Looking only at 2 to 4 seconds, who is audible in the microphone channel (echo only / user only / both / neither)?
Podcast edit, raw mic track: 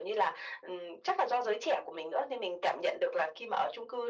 echo only